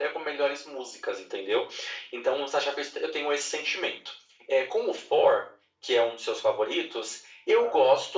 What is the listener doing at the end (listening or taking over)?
listening